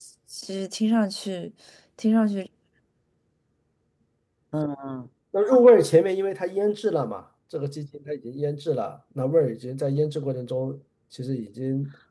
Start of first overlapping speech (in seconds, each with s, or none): none